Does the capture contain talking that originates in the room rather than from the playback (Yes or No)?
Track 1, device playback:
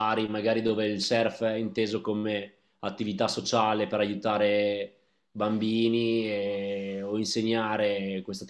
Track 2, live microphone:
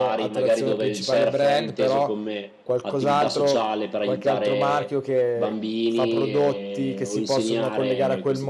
Yes